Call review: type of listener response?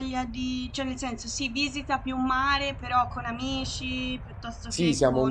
taking over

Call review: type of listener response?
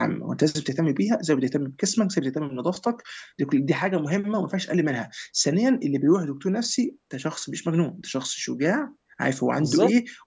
listening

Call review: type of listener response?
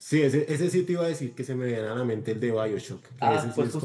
taking over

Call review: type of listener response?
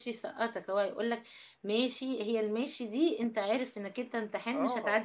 taking over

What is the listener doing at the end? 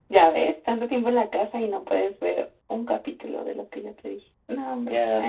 taking over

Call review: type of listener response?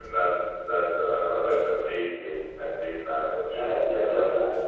taking over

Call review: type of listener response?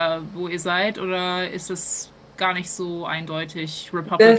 taking over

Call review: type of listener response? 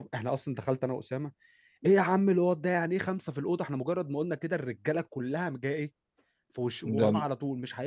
listening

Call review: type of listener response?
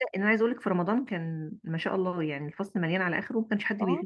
taking over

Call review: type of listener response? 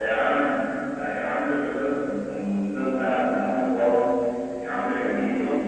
listening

